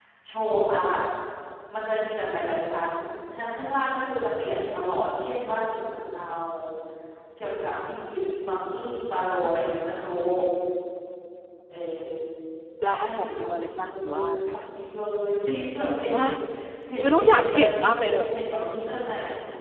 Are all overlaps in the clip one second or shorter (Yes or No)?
No